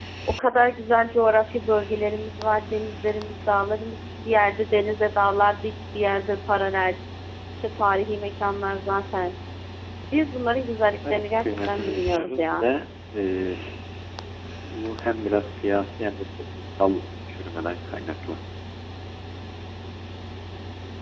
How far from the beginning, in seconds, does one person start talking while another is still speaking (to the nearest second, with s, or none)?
11 s